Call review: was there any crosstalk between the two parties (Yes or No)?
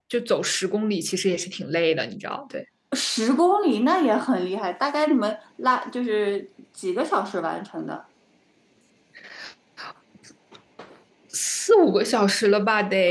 No